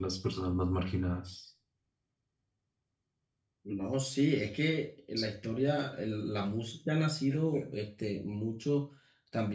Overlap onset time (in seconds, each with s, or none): none